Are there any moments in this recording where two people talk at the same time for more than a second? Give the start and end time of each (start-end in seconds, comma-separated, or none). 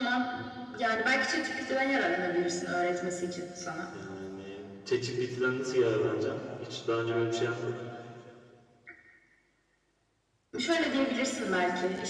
none